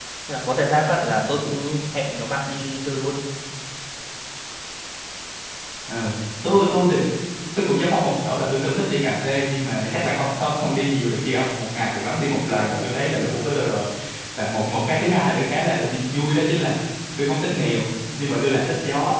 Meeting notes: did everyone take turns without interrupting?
Yes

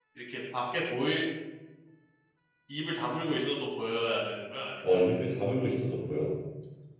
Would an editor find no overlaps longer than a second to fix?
Yes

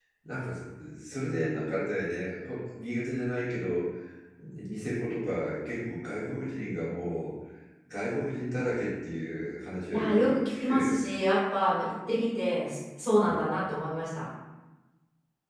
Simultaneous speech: Yes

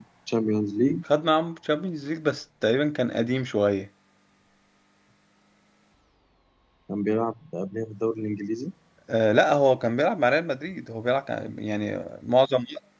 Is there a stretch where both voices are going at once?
No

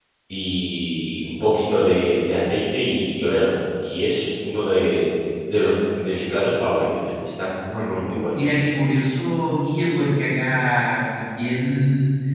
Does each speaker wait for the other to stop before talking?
Yes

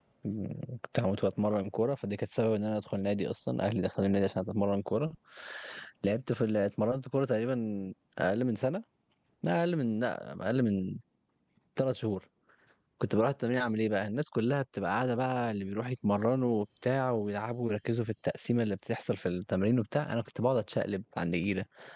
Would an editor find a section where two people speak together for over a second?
No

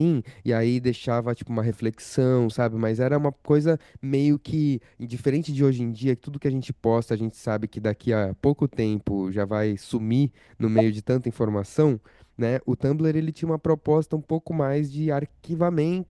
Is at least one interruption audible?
No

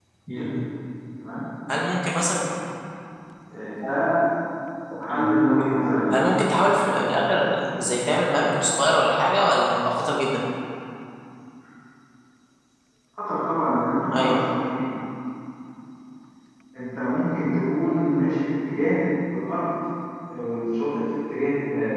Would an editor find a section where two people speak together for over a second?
No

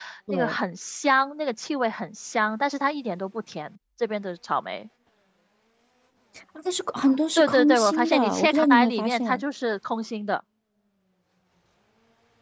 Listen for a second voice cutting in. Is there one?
Yes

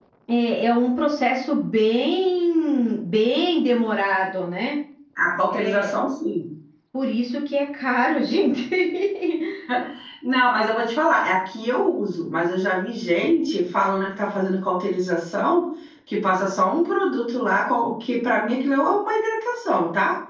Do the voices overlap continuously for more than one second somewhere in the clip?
No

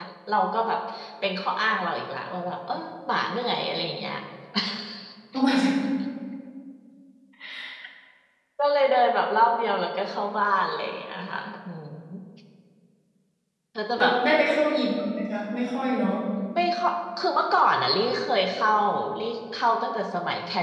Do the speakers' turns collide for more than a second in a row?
No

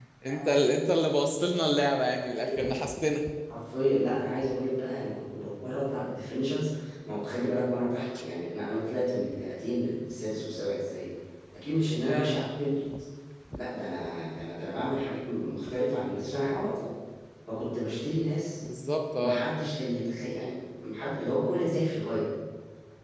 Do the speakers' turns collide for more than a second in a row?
No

